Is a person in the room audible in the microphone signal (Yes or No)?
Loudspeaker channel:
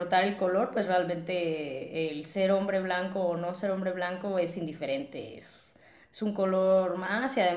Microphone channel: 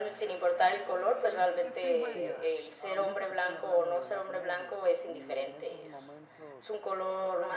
Yes